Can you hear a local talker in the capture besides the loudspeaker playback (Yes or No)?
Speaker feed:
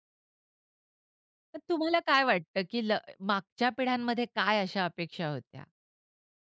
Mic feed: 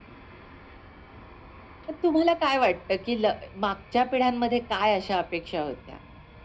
No